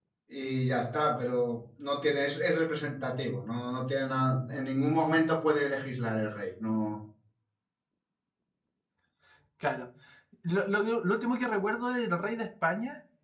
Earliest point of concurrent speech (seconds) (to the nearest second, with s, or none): none